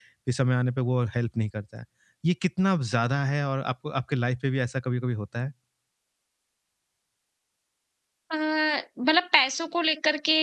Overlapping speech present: No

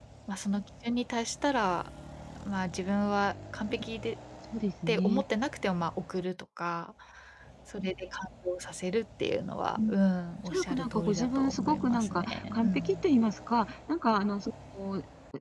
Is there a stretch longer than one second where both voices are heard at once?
Yes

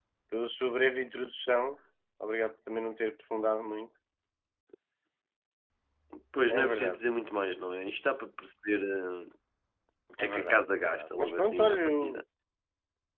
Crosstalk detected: Yes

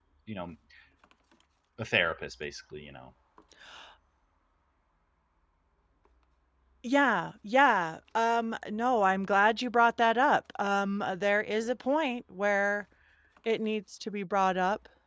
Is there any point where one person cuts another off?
No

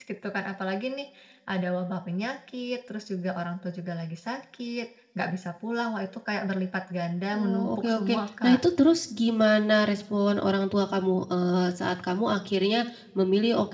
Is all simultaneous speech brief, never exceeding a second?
No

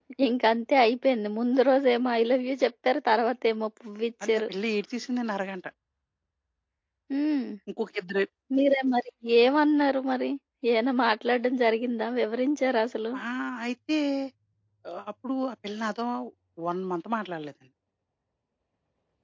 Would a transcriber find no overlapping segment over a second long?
Yes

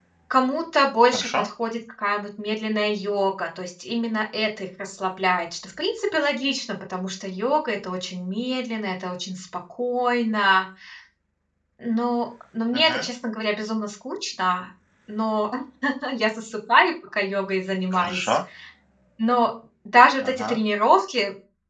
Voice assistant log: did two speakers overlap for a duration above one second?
No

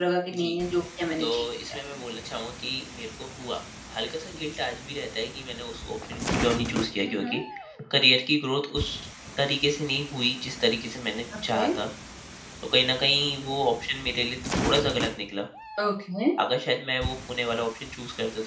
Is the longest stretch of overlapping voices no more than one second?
Yes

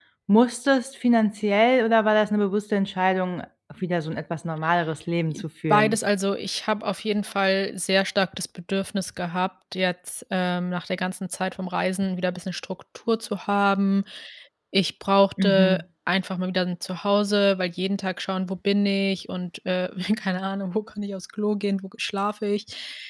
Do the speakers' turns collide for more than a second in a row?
No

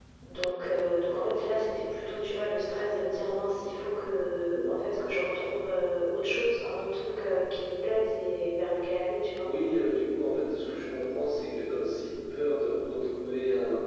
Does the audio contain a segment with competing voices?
No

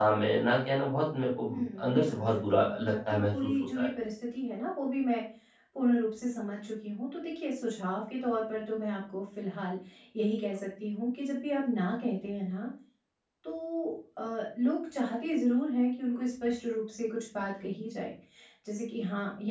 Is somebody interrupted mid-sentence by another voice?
Yes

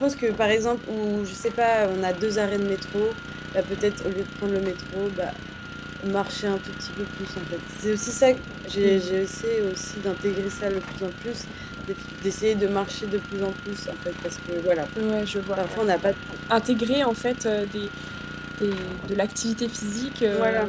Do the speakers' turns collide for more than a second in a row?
No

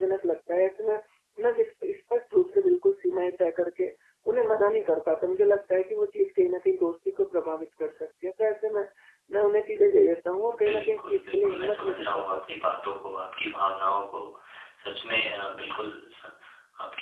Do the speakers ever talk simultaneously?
Yes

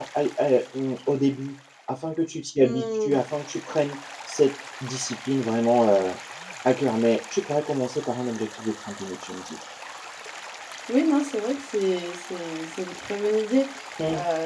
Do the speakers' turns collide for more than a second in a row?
No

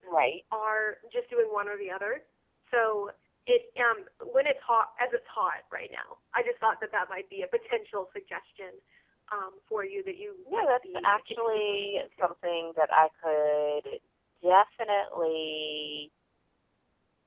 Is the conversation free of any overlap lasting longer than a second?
No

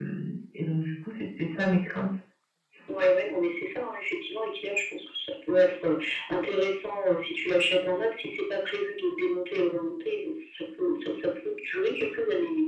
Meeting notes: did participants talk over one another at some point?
No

